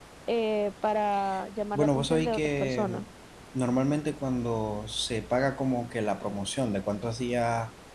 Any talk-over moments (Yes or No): Yes